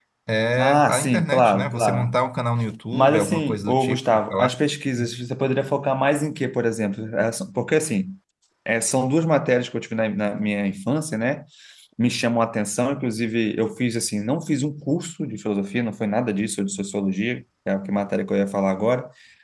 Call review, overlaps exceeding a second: present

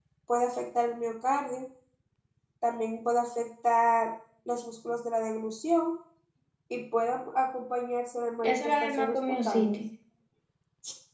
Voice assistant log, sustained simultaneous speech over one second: present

